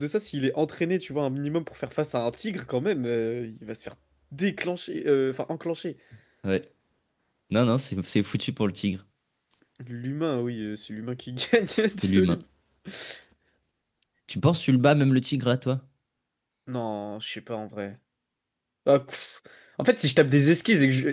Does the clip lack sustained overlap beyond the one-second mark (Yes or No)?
Yes